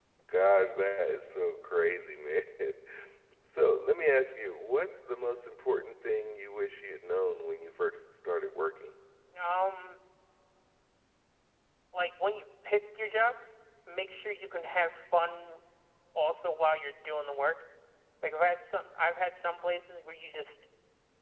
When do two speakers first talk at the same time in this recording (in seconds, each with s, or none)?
none